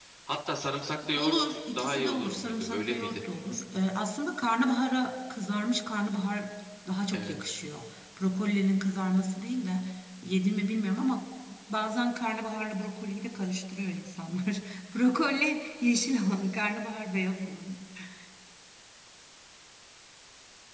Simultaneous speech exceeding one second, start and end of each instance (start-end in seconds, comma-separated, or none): 1.2-3.2